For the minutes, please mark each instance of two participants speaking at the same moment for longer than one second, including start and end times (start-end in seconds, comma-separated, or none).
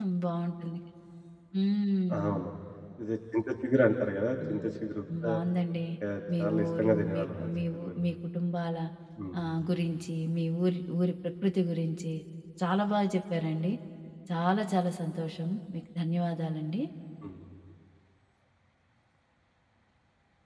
6.4-8.0